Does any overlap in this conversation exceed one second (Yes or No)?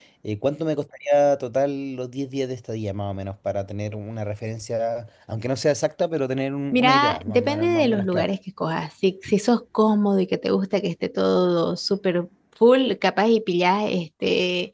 Yes